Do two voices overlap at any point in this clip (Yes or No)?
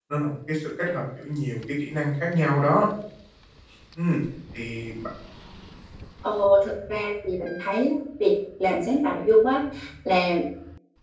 No